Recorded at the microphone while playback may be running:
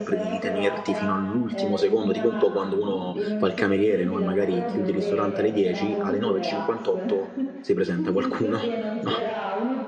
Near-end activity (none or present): present